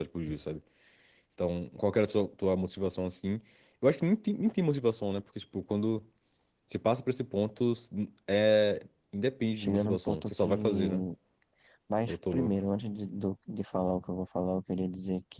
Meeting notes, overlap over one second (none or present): present